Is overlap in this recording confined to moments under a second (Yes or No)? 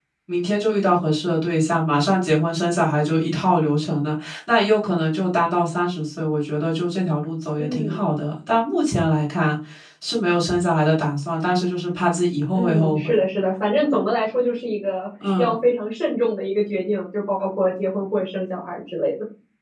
Yes